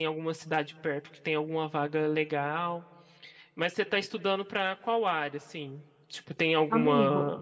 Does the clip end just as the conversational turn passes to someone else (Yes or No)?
No